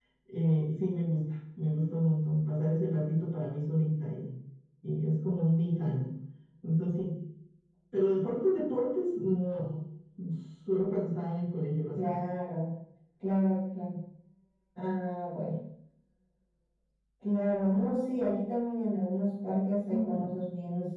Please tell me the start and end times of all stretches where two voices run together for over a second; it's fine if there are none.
none

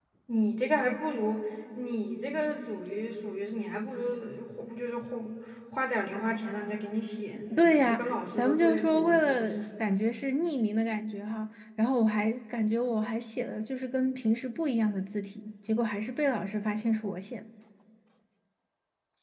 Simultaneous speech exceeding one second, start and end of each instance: 7.5-9.6

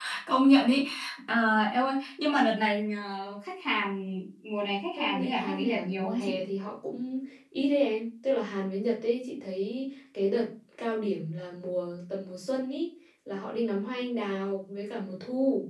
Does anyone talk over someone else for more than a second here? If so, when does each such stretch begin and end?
5.0-6.4

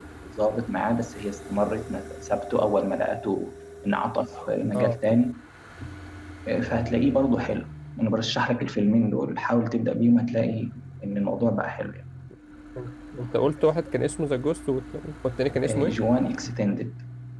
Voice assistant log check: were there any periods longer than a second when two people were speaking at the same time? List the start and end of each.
none

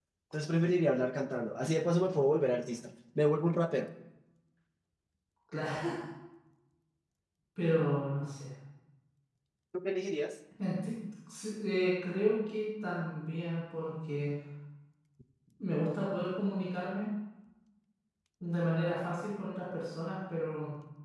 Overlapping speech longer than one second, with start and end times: none

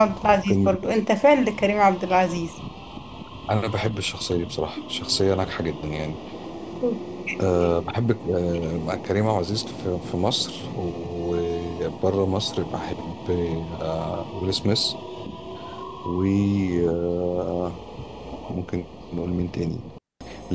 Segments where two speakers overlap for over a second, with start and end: none

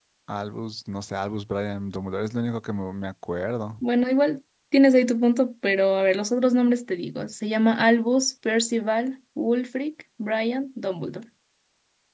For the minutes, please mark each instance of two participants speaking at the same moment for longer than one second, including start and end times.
none

